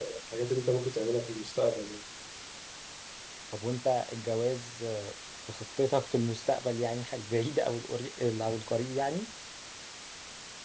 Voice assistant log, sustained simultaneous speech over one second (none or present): none